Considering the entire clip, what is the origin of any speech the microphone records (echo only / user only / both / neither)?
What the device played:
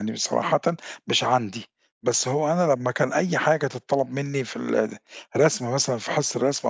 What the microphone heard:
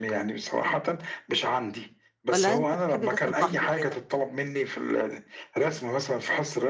both